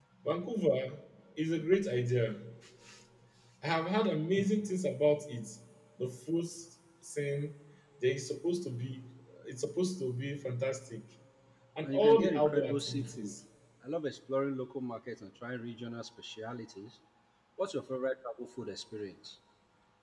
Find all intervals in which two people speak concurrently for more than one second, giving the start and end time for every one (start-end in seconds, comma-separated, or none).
11.8-13.3